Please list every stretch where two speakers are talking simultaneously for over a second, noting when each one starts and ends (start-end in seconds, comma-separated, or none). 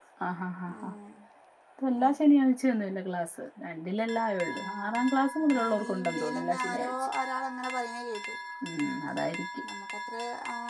5.5-7.1